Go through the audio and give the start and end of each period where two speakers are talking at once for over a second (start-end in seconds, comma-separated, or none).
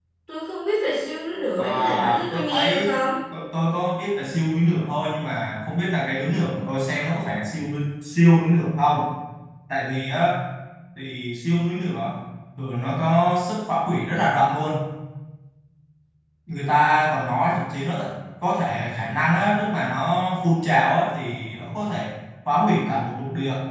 1.6-3.0